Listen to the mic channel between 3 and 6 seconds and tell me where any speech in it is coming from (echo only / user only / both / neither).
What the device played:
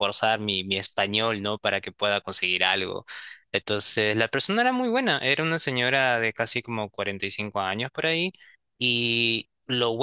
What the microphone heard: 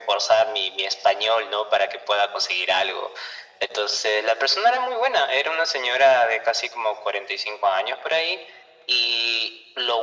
echo only